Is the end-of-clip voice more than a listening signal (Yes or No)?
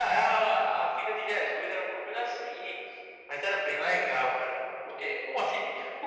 No